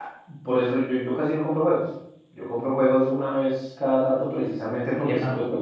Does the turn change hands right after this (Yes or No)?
No